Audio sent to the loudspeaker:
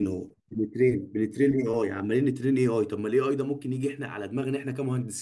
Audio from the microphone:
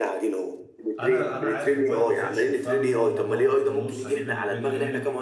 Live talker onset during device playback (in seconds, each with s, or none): 1.0 s